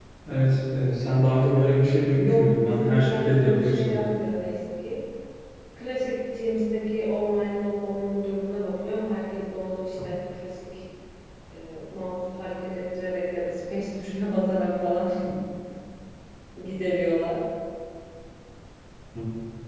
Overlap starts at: 2 s

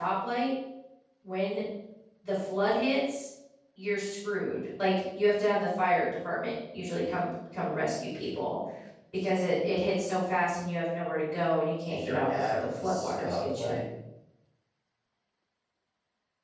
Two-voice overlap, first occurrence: 12 s

